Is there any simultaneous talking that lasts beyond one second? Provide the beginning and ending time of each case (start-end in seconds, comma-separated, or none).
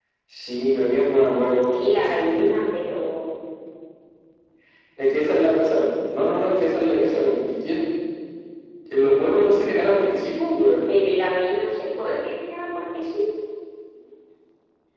none